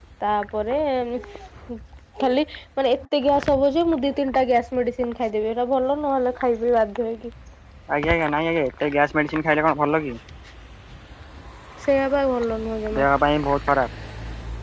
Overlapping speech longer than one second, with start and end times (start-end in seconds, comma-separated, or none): none